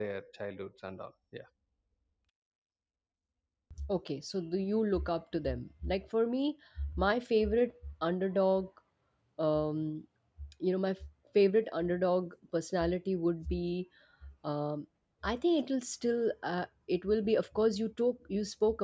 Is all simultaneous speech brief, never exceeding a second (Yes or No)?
Yes